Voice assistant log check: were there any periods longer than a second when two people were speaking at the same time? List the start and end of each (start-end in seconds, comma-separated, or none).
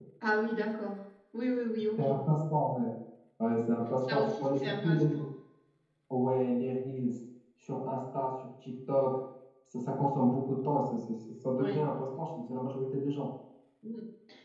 4.0-5.2